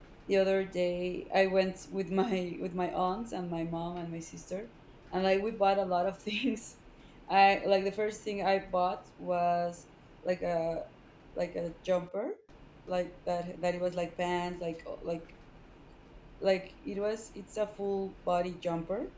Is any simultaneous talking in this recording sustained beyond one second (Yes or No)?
No